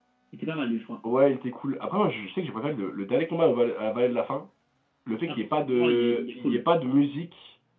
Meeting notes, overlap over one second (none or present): present